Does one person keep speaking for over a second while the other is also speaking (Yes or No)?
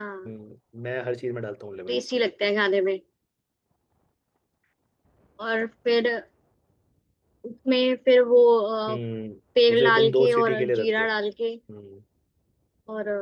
Yes